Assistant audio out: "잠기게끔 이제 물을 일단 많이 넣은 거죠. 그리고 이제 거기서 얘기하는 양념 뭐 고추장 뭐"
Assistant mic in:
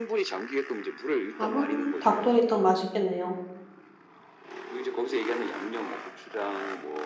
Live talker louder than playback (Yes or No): Yes